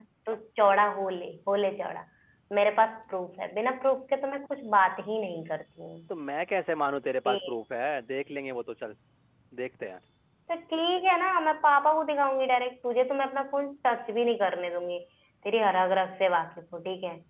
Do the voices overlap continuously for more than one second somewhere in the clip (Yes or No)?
No